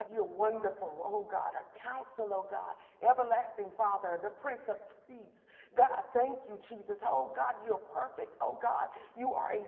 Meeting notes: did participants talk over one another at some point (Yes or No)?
No